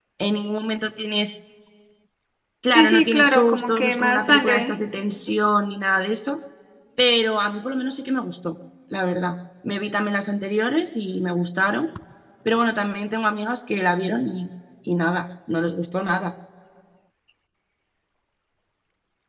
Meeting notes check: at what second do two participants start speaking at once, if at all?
2.7 s

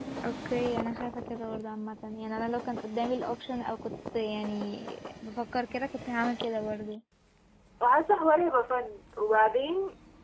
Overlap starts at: none

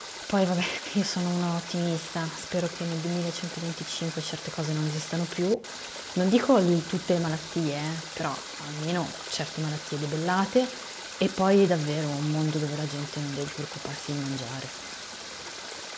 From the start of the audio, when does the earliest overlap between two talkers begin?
none

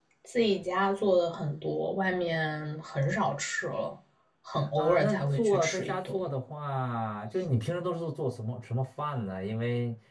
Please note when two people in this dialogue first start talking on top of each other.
4.8 s

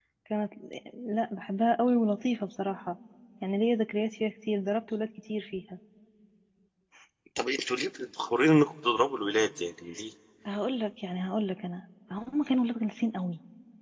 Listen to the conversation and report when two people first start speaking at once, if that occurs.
none

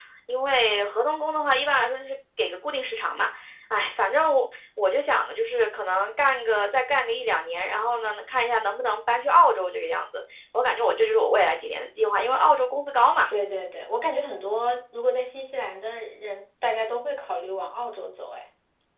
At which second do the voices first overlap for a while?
none

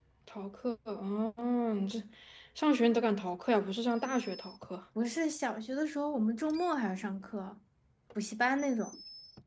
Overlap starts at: none

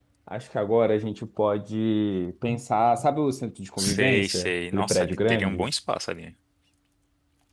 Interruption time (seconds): 3.8 s

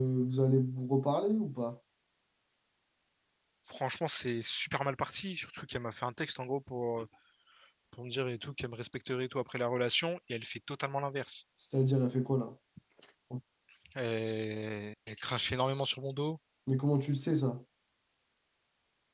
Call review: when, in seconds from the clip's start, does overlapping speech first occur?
none

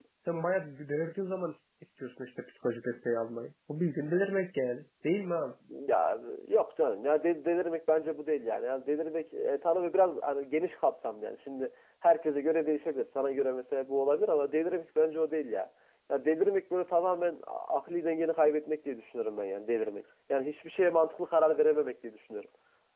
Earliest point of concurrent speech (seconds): none

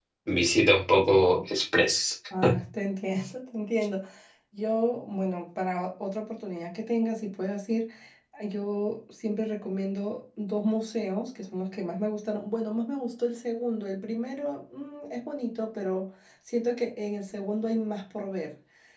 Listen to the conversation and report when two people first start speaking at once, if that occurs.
none

